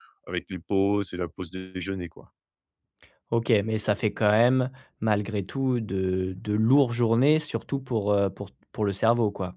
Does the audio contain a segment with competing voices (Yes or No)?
No